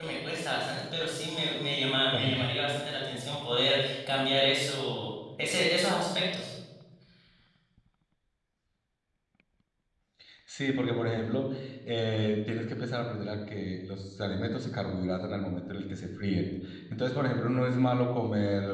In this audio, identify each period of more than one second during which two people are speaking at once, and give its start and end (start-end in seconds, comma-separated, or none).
none